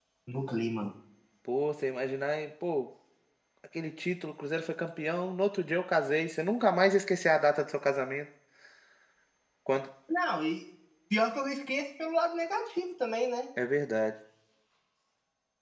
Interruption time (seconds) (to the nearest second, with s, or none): none